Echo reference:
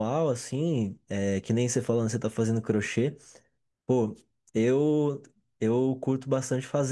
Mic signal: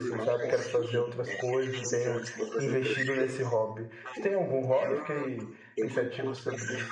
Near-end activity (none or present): present